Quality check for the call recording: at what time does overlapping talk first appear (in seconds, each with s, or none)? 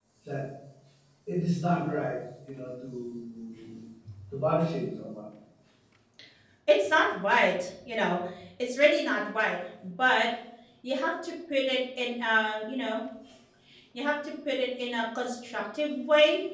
none